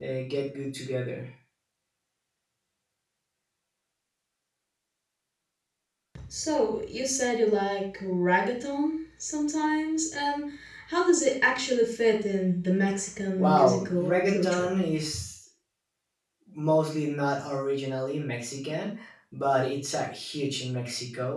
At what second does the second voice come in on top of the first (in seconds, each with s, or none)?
13.4 s